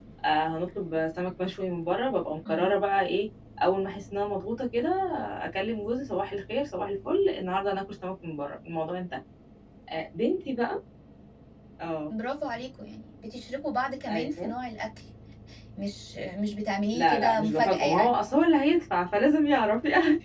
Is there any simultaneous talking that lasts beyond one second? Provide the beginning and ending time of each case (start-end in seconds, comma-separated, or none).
16.9-18.1